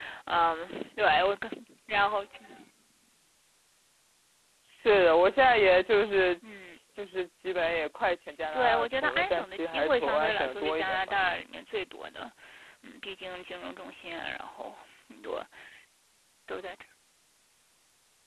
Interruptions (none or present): present